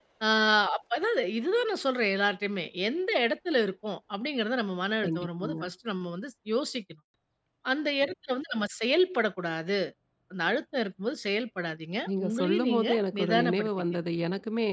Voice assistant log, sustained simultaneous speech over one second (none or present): present